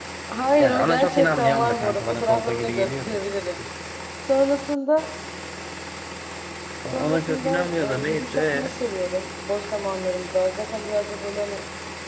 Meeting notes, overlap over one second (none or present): present